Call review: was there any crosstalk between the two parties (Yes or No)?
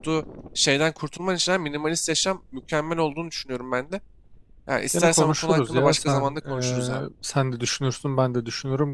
Yes